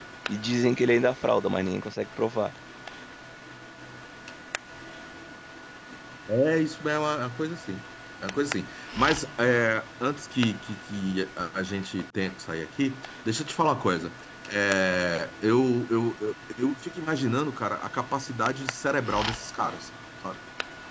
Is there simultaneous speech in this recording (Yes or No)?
No